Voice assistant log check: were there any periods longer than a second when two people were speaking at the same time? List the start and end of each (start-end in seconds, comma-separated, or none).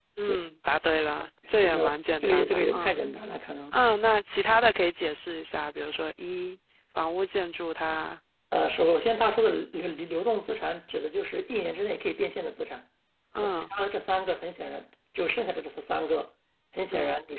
1.6-3.0